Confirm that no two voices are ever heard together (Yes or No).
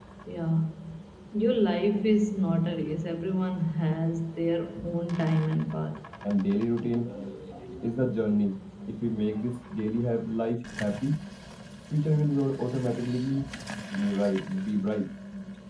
Yes